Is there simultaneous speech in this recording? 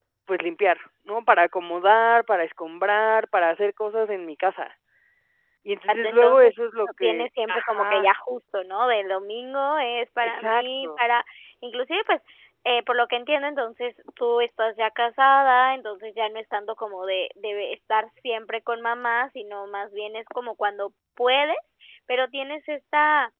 Yes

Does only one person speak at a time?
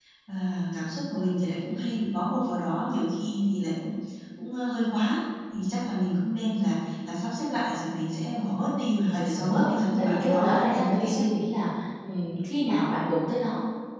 No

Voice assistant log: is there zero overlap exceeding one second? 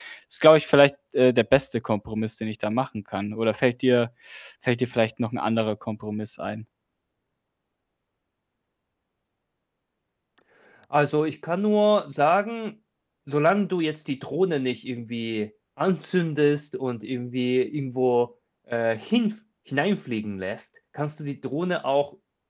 Yes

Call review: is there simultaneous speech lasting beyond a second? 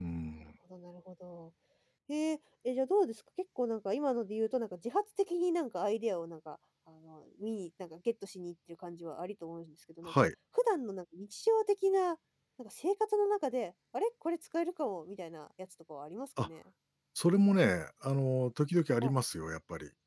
No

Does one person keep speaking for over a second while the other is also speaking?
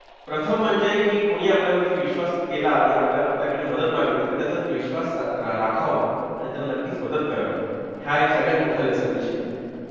No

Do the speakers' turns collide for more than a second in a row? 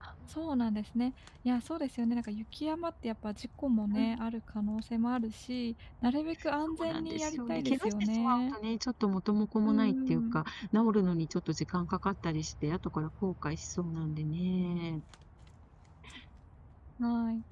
Yes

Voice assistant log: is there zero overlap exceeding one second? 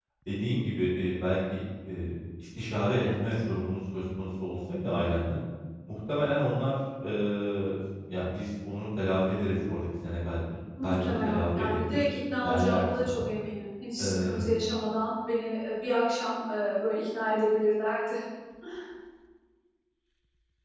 No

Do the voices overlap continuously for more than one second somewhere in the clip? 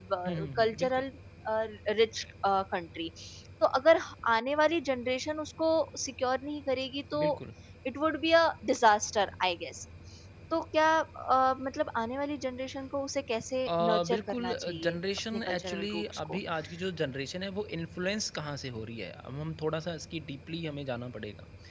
Yes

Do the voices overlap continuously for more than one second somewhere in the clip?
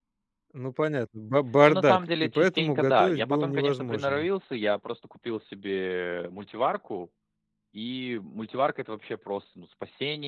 Yes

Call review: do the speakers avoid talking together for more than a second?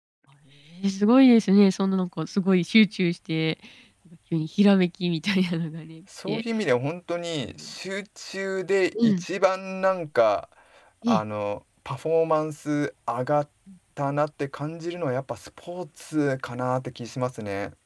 Yes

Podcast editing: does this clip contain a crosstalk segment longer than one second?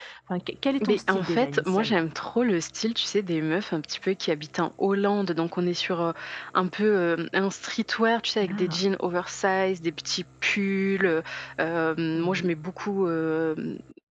Yes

